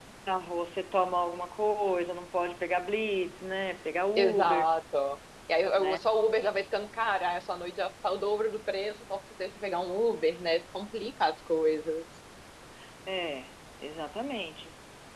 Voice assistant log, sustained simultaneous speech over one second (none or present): none